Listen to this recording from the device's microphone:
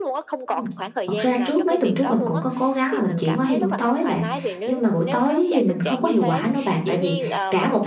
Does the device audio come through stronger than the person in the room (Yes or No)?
No